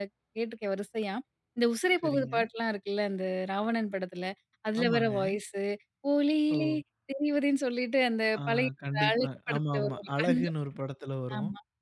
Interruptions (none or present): present